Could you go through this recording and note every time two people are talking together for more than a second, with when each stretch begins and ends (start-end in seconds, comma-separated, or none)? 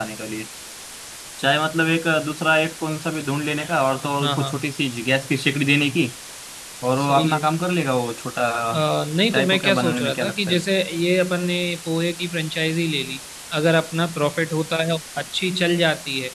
9.3-10.6